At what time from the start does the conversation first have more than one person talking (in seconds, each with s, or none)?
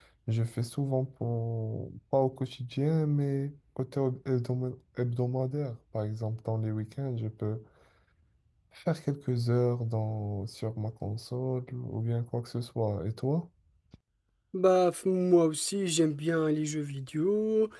none